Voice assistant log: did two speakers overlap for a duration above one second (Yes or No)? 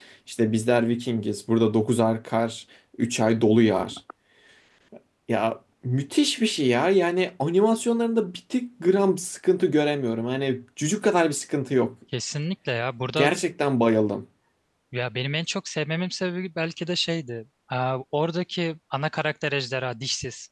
No